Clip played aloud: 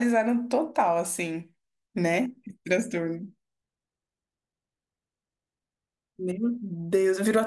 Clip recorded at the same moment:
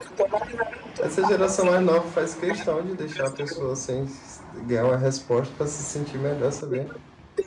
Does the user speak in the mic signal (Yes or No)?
Yes